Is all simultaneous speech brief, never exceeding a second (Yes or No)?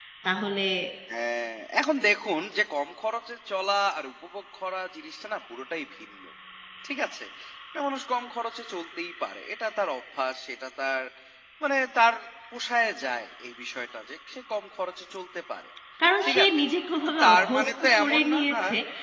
No